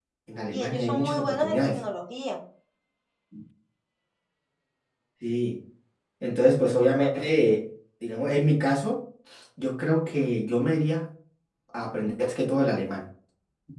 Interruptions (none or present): present